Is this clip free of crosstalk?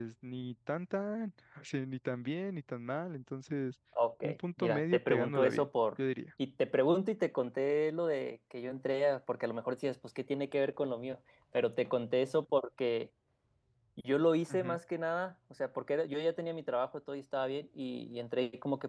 No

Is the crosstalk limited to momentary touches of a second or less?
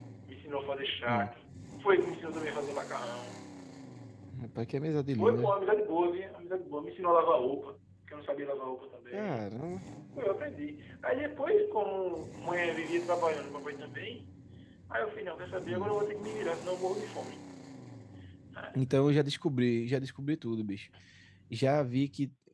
Yes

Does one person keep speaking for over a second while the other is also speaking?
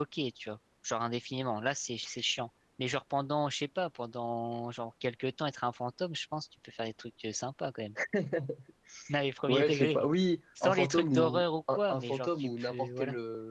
Yes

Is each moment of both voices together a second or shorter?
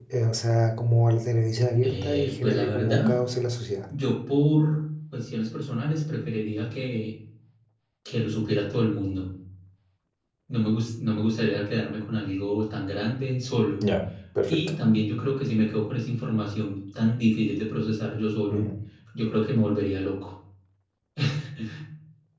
No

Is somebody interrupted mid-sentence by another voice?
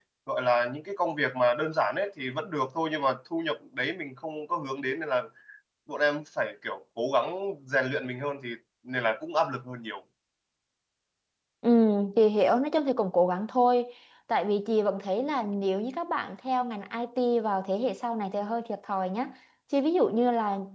No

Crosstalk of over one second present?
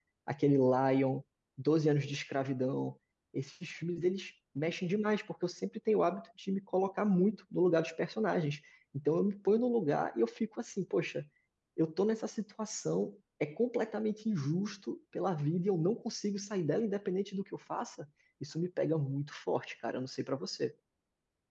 No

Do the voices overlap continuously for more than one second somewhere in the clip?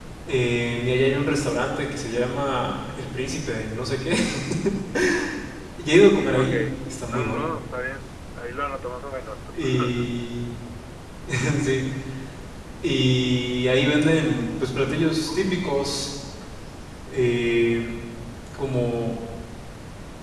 No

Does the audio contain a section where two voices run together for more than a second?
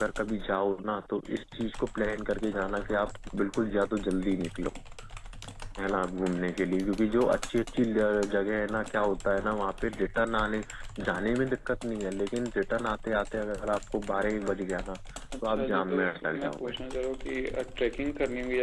Yes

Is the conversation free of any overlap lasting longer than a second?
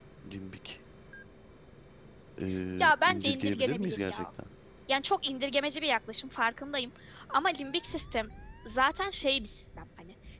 No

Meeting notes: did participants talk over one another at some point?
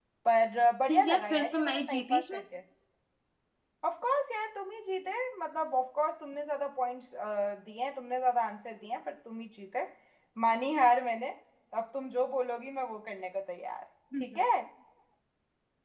Yes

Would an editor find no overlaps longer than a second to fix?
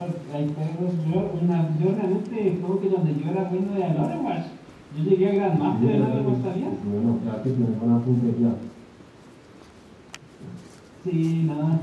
No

